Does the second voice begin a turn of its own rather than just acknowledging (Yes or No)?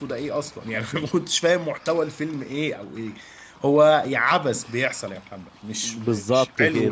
Yes